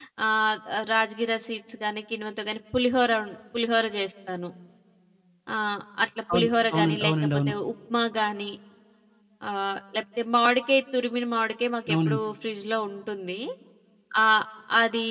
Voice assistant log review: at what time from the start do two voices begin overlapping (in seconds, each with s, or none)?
6.3 s